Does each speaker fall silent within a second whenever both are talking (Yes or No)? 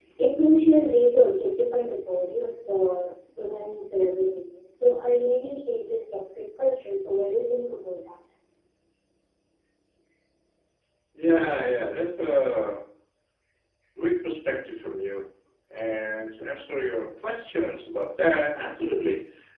Yes